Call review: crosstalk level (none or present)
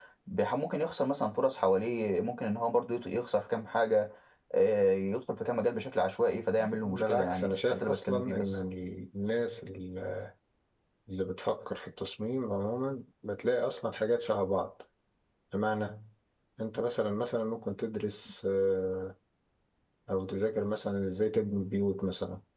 present